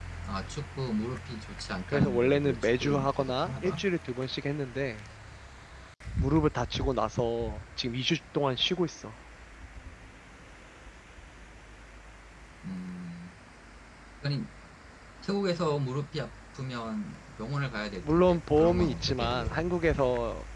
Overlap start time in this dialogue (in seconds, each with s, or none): 1.9 s